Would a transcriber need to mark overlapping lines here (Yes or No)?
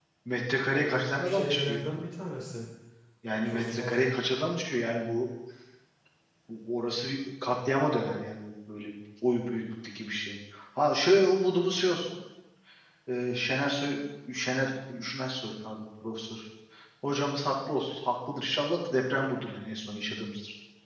Yes